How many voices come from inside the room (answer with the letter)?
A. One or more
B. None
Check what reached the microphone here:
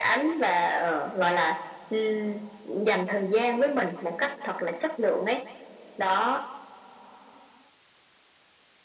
B